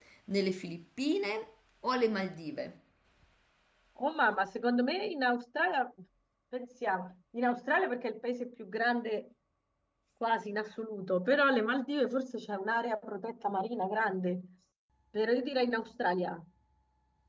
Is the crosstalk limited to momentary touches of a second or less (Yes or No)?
Yes